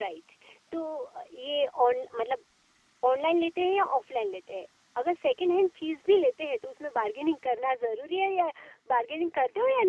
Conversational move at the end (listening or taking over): taking over